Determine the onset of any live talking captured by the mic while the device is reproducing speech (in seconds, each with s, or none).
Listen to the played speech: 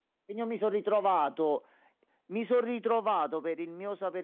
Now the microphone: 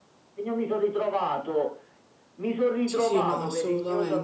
2.8 s